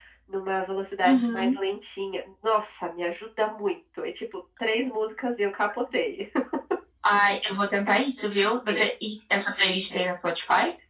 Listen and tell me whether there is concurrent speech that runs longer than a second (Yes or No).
No